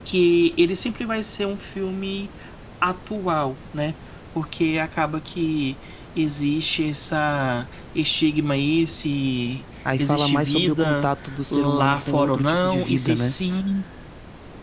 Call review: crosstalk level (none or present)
present